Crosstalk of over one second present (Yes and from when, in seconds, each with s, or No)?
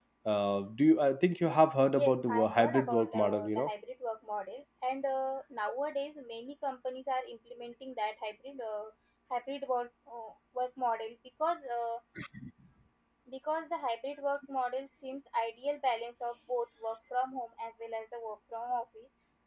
Yes, from 1.9 s